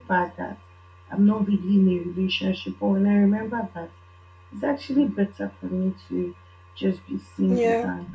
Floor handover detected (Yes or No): No